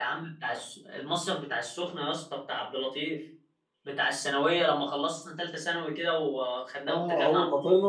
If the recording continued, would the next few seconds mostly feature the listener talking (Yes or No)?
Yes